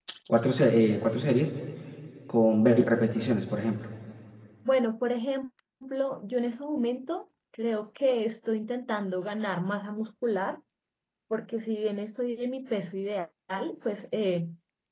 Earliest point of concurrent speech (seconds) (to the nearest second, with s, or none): none